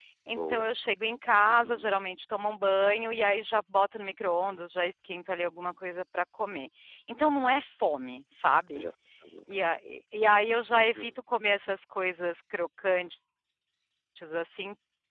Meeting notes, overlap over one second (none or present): none